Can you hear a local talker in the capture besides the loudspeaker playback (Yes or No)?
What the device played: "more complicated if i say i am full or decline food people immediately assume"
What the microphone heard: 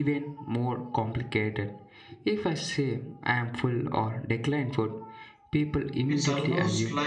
Yes